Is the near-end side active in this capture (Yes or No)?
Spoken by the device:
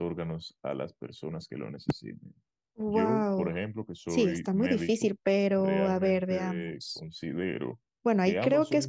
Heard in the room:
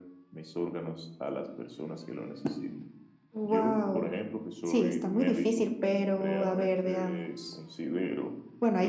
Yes